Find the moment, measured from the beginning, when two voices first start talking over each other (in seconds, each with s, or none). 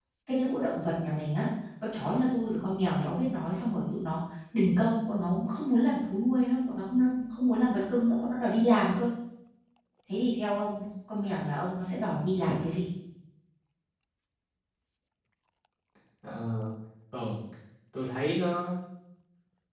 none